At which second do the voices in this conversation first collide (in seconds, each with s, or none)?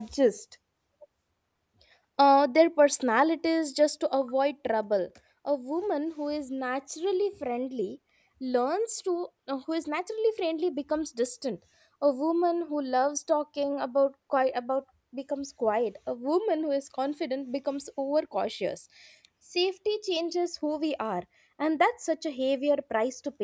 none